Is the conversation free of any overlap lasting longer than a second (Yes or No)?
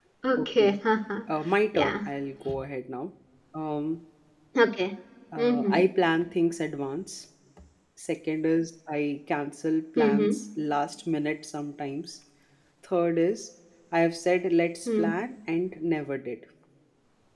Yes